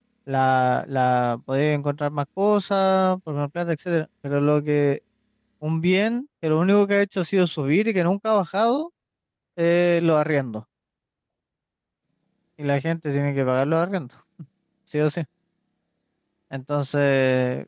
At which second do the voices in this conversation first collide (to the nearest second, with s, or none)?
none